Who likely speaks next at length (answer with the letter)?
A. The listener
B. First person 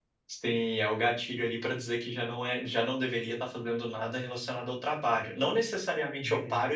B